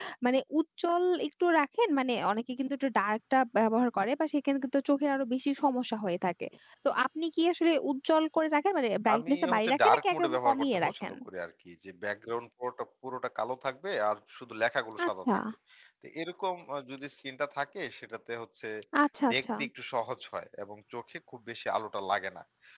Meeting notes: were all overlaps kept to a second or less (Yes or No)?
No